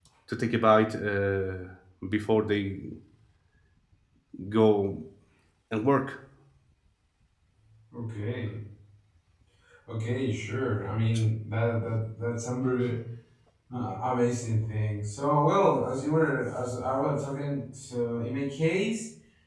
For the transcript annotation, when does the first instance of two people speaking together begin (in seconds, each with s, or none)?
none